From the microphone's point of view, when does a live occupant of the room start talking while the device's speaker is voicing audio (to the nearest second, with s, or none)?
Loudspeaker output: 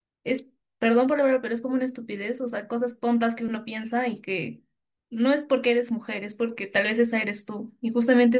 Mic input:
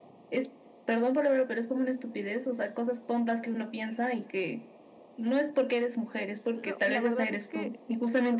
7 s